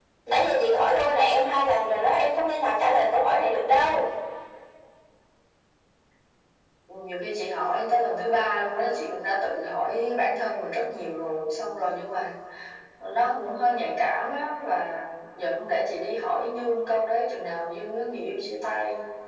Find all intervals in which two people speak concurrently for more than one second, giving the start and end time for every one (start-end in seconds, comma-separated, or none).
none